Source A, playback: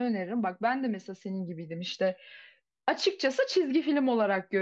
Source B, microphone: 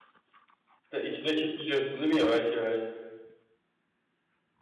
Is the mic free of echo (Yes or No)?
Yes